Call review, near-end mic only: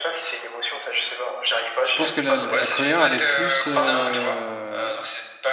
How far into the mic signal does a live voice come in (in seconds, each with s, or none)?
1.8 s